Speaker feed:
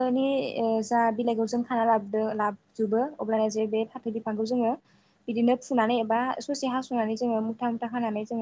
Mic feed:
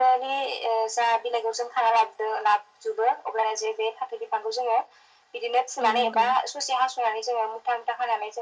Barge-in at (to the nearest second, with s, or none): 6 s